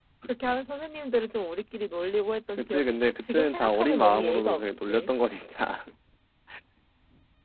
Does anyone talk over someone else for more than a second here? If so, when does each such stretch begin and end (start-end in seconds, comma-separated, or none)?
2.6-5.1